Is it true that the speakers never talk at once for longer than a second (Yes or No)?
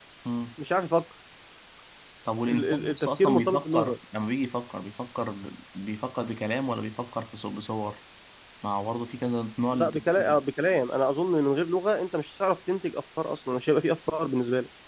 No